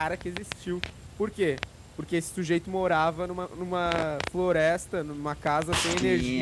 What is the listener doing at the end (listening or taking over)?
taking over